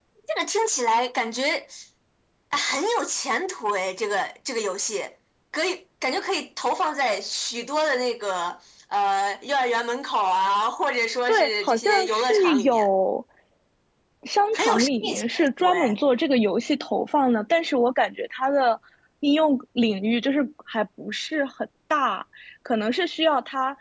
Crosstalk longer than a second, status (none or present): present